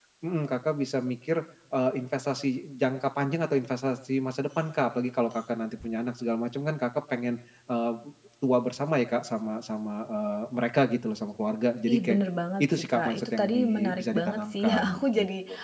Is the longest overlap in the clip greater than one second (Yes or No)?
Yes